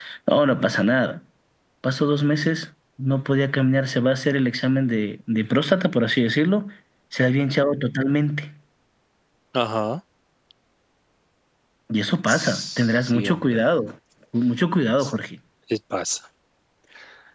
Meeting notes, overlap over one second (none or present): present